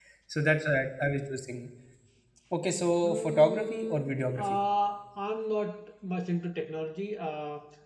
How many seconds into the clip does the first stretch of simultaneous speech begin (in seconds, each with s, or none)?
3.0 s